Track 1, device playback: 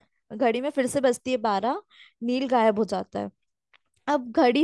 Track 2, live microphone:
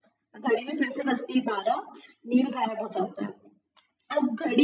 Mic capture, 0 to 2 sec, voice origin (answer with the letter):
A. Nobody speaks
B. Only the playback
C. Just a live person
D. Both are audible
B